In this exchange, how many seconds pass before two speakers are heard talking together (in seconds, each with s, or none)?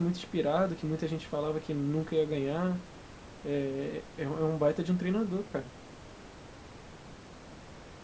none